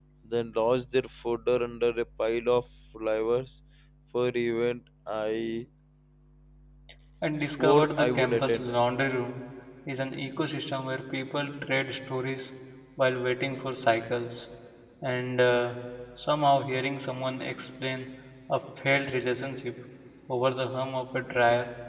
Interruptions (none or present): present